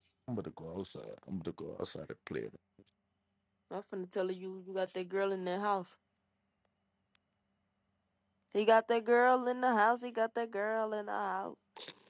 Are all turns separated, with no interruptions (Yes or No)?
Yes